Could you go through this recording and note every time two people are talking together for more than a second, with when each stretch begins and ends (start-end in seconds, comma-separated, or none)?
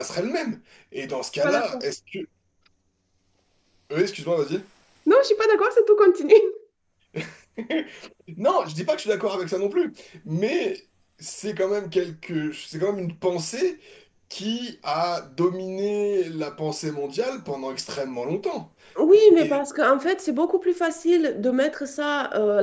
none